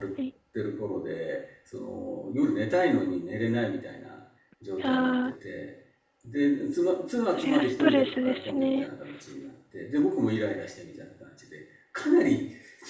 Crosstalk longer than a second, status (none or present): present